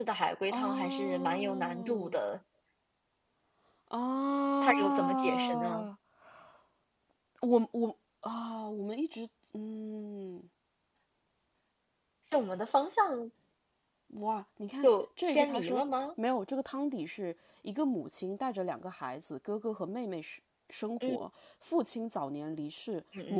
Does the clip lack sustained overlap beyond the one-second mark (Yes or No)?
No